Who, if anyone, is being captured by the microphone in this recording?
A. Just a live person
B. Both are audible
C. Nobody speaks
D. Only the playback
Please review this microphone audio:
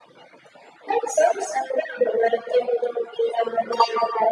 D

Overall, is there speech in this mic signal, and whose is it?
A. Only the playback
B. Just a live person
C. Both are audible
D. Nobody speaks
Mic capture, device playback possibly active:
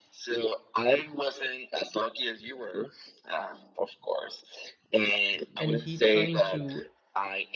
C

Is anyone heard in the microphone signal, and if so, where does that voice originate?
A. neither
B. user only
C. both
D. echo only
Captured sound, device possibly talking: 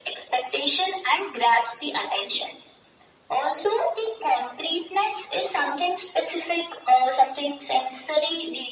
D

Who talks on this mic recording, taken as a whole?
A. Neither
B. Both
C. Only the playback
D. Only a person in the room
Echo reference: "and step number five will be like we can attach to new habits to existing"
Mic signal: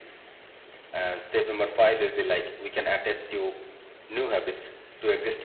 C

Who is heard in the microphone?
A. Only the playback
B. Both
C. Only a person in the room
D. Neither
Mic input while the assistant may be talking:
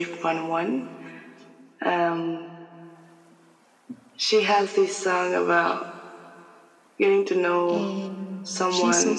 B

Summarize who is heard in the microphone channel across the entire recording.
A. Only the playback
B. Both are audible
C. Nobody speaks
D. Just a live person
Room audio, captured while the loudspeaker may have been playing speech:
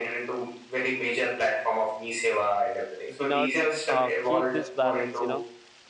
B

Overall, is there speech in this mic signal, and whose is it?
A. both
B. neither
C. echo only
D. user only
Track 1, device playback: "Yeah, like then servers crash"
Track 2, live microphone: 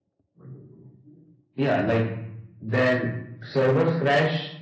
C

